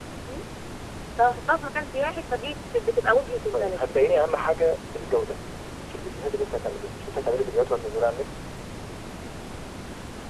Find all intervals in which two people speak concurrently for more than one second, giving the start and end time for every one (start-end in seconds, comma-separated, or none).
none